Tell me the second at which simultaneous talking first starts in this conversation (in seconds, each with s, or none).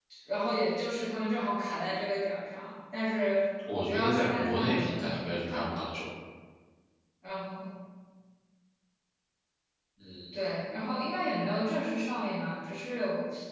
3.6 s